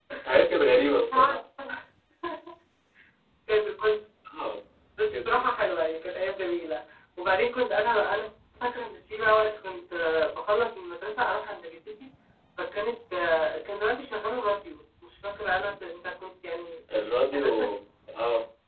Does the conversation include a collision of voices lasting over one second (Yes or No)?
No